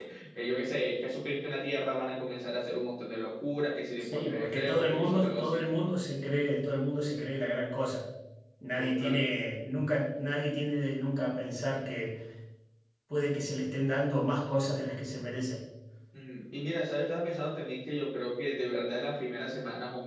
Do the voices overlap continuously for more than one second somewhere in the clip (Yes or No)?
Yes